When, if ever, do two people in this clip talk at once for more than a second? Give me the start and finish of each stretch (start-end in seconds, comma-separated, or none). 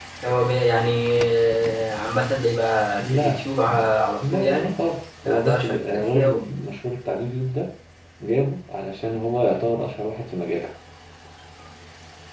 5.2-6.5